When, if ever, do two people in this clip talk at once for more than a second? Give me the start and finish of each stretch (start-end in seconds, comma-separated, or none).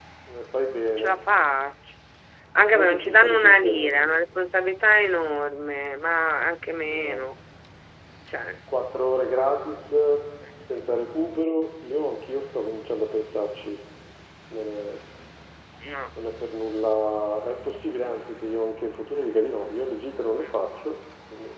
2.7-3.9